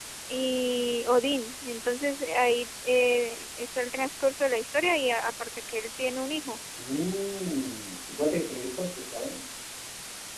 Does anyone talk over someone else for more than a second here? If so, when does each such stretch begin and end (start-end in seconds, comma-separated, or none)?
none